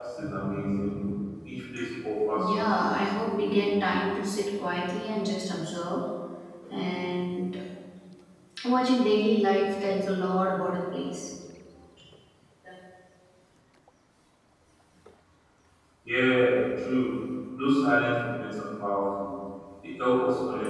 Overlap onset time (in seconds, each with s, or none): 2.4 s